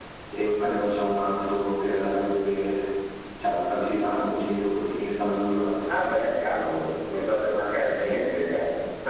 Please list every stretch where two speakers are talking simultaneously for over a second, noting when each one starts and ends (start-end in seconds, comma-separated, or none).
none